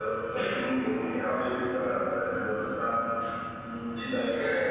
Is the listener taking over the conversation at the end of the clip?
No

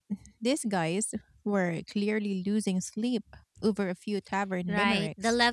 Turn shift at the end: Yes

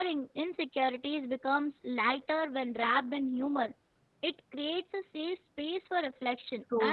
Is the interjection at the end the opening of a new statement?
No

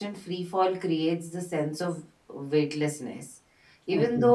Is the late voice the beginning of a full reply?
No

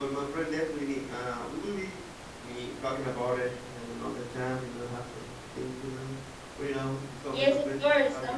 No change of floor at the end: No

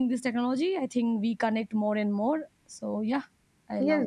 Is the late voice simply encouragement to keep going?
No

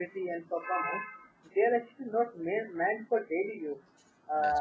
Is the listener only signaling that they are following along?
Yes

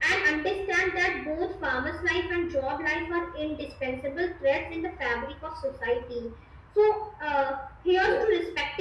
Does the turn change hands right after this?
No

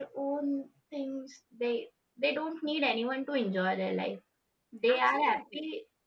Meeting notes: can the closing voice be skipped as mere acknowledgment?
Yes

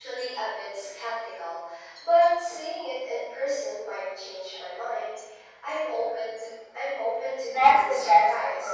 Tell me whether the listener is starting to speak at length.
Yes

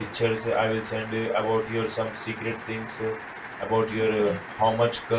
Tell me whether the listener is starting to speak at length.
No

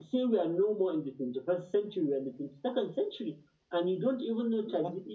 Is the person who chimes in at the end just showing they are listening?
Yes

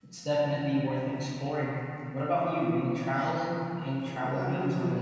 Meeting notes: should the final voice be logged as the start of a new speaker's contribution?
Yes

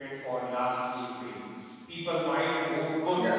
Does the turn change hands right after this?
No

